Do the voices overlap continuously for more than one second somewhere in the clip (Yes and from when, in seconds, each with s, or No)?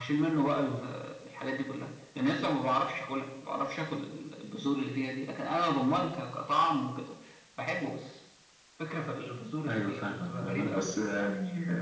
Yes, from 9.7 s